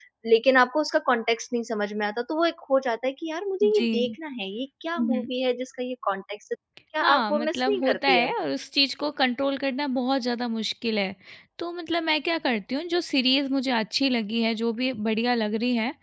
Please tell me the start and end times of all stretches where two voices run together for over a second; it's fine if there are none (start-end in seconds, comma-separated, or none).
7.0-8.3